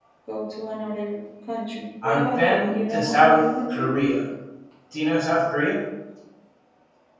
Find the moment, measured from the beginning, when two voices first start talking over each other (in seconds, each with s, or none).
2.0 s